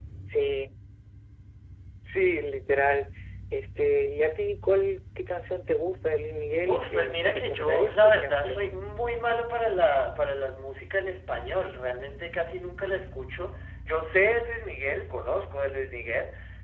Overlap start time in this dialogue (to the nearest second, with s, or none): 7 s